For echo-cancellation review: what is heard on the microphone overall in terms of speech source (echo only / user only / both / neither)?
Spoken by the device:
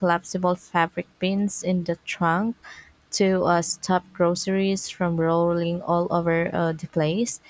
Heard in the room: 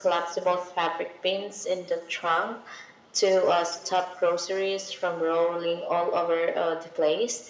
echo only